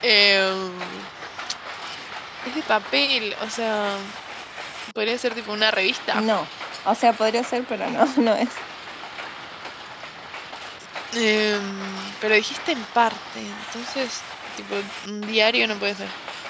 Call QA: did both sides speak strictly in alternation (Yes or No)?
Yes